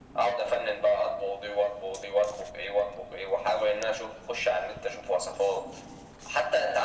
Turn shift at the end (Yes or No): No